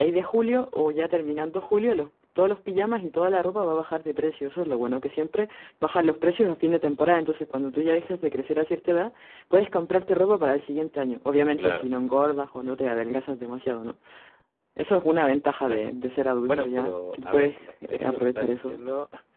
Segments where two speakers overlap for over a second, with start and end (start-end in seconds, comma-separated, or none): 16.5-18.8